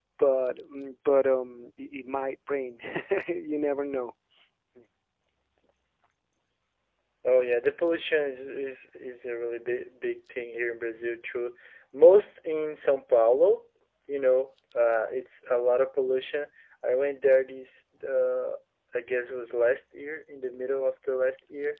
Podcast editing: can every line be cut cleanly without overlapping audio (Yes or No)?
Yes